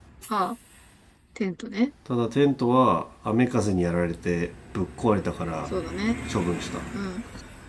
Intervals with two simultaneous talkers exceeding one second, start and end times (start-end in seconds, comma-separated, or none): none